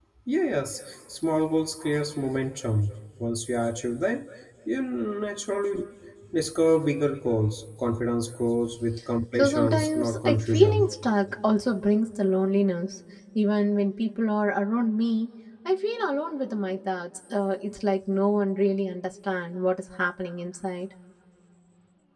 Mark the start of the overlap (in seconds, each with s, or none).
9.4 s